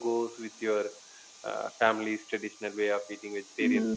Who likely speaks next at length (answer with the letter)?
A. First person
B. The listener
B